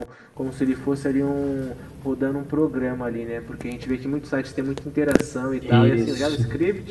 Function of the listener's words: listening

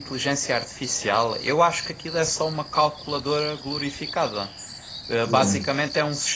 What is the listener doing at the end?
listening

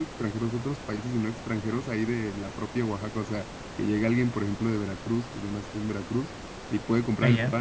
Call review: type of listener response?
listening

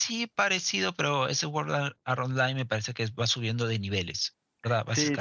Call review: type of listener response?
taking over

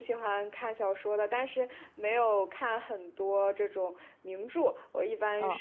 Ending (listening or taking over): listening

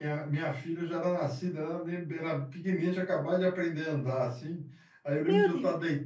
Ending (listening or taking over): listening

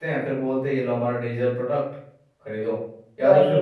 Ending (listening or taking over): listening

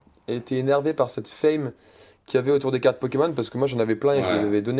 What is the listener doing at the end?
listening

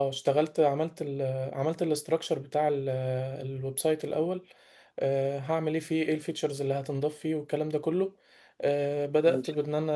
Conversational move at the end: listening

